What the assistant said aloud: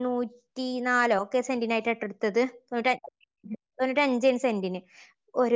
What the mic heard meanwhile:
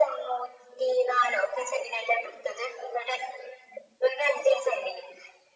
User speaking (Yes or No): No